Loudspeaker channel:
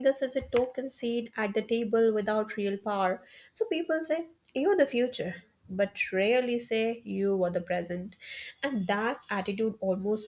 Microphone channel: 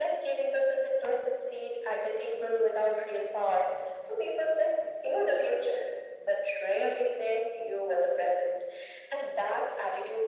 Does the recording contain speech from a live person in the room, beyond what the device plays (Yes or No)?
No